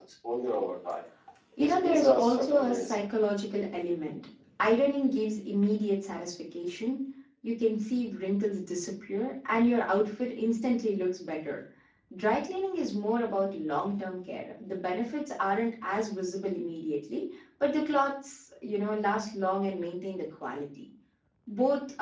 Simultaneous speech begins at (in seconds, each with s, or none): 1.6 s